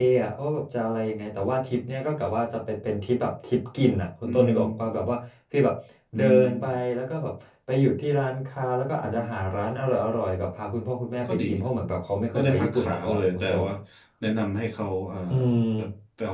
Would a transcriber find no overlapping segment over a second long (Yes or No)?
No